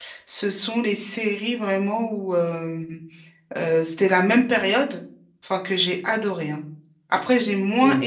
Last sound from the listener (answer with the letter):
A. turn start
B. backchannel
B